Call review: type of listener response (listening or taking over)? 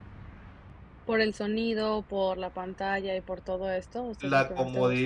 taking over